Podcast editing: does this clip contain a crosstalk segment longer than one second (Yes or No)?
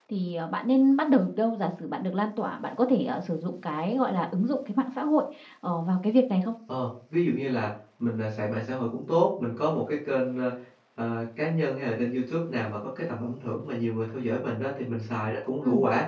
No